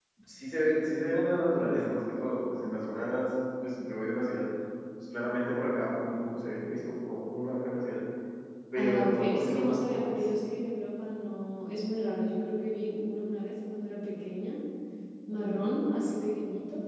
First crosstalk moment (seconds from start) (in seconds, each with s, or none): 8.8 s